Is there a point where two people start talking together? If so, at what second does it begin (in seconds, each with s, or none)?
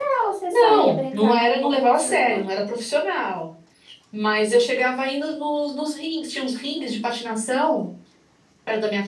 0.5 s